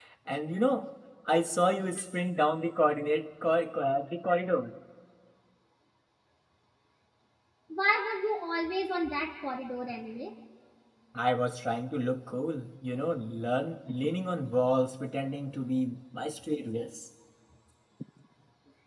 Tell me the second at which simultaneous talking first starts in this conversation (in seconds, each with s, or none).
none